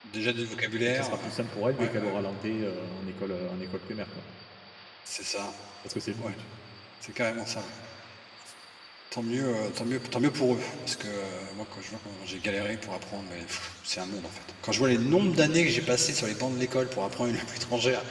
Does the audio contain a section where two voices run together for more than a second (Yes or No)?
No